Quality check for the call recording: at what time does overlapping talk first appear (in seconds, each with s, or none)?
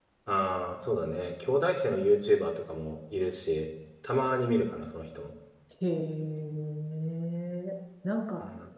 none